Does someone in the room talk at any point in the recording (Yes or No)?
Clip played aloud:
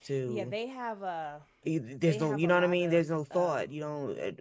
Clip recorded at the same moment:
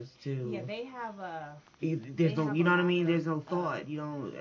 No